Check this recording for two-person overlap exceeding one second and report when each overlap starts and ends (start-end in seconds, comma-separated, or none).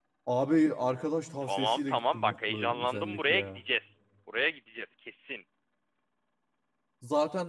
1.4-3.6